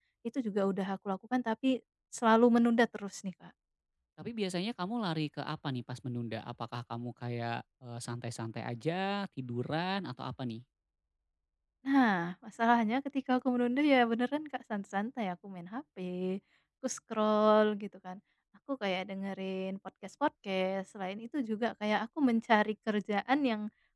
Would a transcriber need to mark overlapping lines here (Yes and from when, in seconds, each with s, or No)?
No